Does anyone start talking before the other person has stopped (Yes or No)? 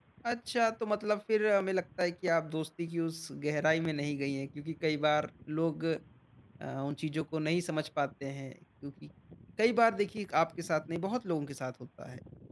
No